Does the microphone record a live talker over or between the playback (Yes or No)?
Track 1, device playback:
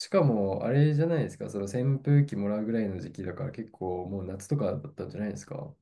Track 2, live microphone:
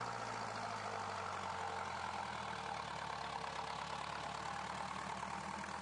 No